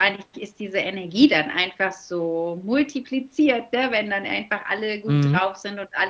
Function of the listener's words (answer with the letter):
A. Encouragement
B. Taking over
A